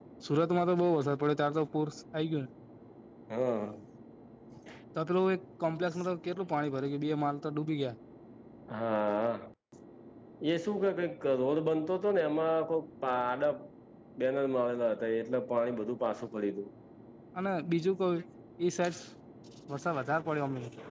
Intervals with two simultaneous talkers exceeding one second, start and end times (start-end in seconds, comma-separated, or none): none